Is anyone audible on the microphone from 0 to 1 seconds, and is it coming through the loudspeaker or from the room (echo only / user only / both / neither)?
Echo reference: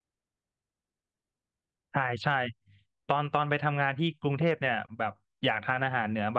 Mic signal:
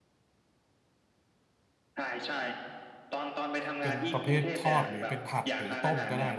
neither